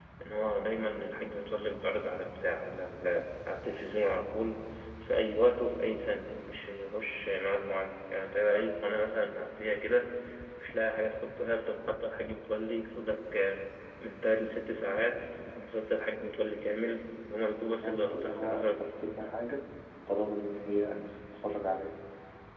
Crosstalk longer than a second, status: present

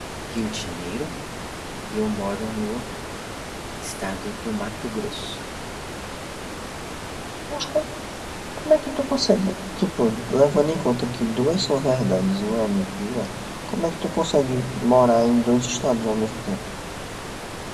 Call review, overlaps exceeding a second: none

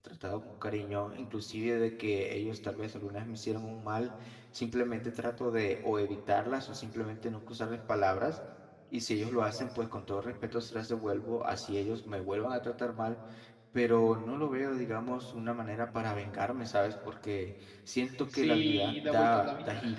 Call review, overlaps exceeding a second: present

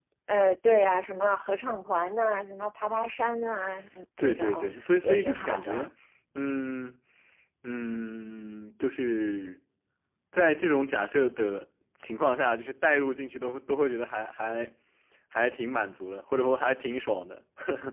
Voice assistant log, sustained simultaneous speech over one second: present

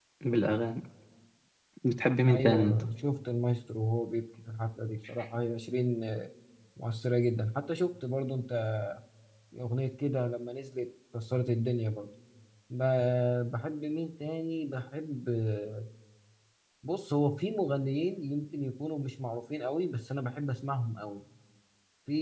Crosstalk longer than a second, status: none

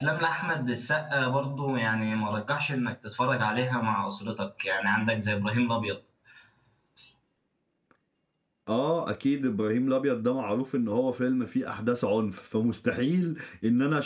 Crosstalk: none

